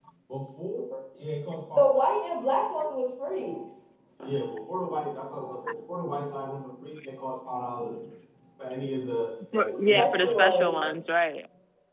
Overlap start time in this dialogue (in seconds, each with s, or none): 9.5 s